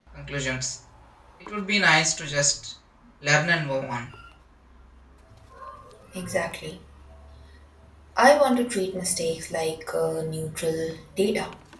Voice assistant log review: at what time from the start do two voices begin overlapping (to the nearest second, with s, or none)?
none